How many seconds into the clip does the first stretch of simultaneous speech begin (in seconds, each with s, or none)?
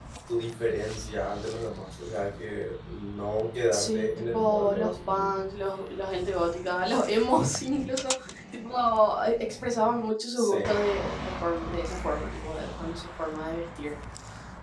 3.7 s